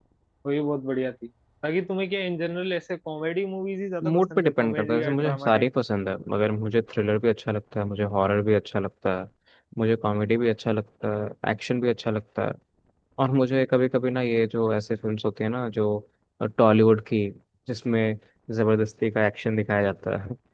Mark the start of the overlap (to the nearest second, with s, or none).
4 s